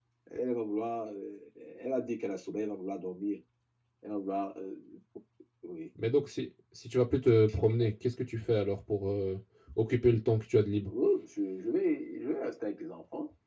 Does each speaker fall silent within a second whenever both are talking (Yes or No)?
Yes